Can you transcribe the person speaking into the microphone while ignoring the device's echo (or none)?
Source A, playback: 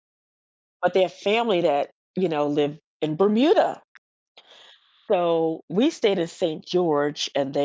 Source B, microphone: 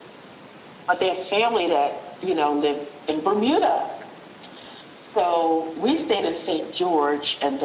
none